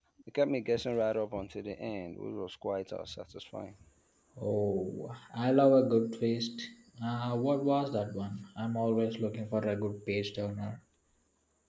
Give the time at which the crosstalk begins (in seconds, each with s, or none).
none